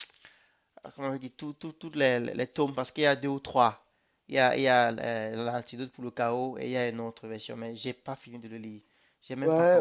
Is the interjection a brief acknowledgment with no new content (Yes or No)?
No